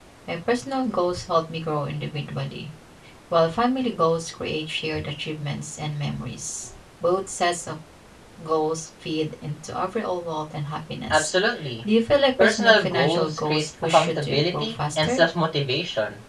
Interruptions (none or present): present